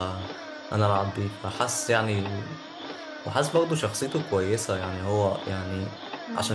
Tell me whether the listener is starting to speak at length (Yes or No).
No